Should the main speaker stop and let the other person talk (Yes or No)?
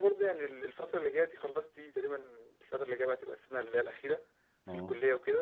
No